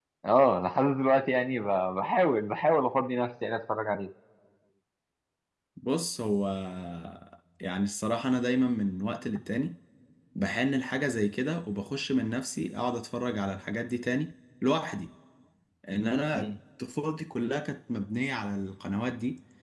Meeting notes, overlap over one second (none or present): none